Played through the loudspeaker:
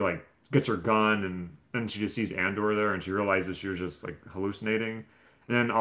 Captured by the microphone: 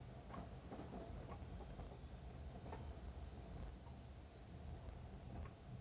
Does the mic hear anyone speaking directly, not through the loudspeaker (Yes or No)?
No